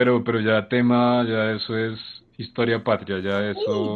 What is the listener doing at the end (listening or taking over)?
taking over